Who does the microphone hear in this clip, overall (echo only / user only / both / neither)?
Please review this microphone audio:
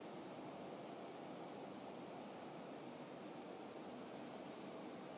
neither